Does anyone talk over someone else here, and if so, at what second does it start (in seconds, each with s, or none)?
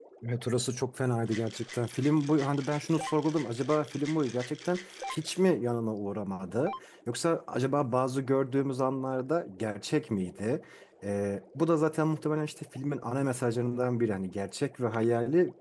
none